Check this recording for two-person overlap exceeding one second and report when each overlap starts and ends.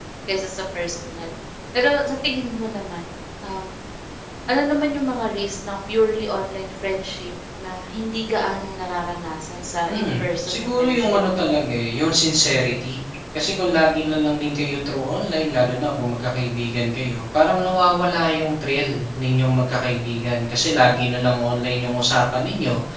9.9-11.2

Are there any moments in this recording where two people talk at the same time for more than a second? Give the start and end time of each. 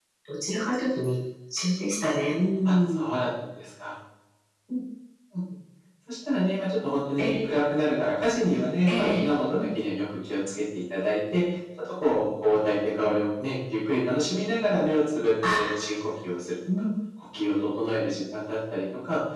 none

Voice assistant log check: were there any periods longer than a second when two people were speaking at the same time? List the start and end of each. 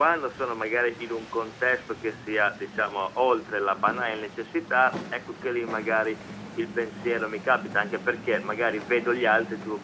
none

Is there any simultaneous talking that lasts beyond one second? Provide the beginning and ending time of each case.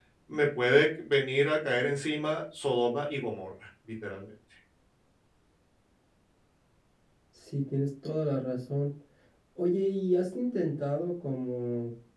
none

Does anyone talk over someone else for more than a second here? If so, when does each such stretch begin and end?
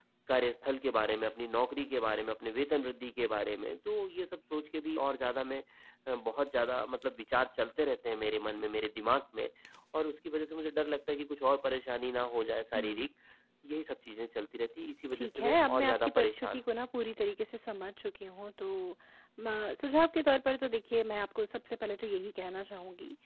15.1-16.6

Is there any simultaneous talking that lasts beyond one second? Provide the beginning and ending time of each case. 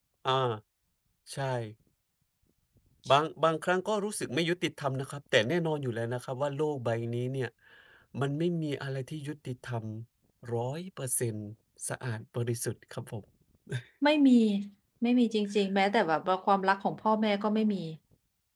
none

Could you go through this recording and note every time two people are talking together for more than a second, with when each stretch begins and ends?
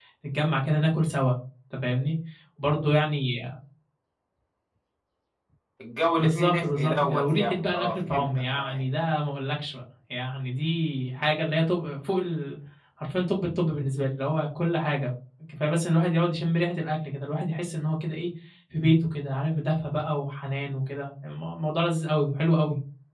6.2-8.8

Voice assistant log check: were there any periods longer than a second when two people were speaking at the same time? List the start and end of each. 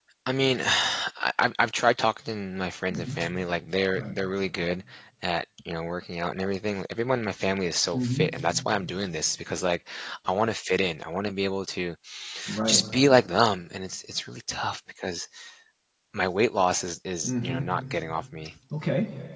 none

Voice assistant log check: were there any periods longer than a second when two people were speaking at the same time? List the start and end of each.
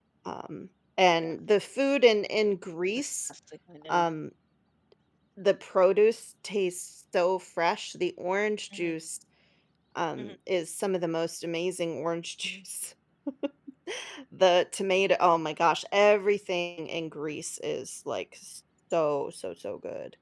none

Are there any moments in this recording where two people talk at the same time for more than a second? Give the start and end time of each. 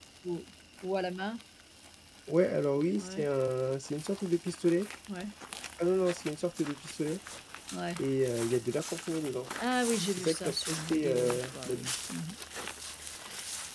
10.1-11.9

